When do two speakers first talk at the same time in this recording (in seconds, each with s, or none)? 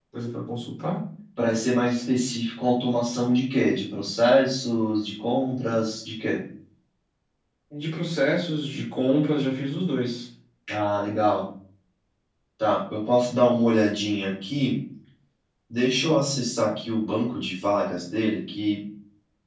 none